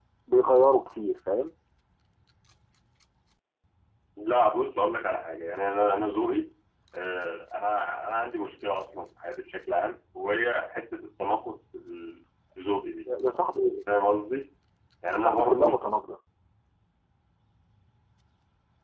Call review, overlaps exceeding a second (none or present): none